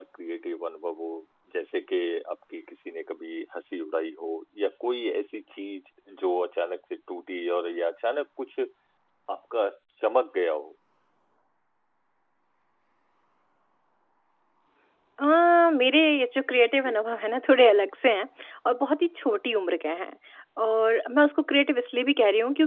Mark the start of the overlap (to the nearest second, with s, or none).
none